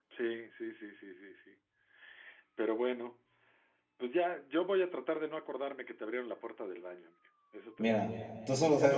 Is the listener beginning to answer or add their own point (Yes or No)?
Yes